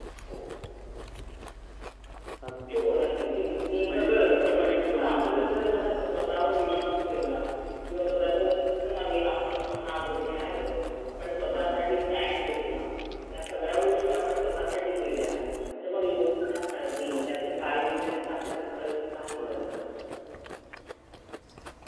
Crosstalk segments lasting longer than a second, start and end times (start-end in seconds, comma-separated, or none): 3.9-5.7